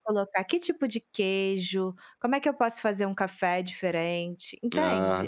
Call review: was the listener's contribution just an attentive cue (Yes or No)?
Yes